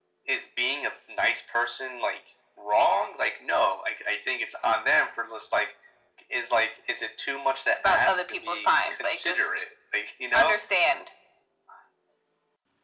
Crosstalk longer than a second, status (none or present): present